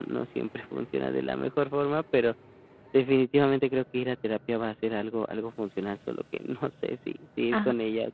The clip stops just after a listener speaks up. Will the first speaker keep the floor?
No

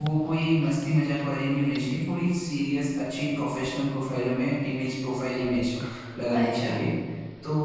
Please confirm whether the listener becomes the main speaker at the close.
No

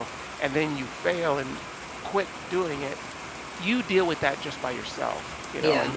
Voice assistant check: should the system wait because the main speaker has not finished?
Yes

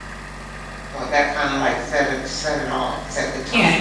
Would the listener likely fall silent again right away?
No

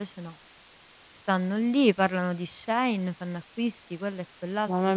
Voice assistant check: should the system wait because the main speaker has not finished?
No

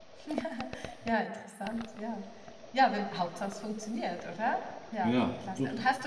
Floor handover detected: No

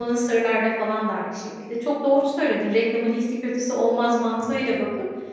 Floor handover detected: No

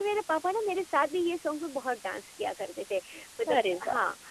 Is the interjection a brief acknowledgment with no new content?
Yes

